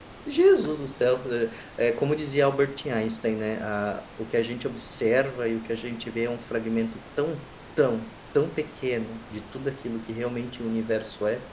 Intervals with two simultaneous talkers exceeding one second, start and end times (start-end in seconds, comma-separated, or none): none